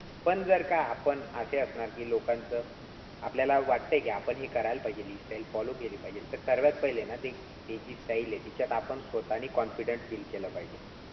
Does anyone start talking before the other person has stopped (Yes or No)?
No